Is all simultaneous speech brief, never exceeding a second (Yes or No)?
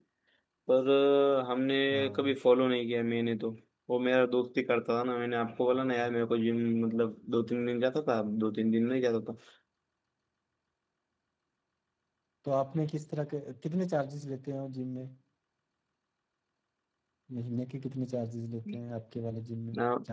Yes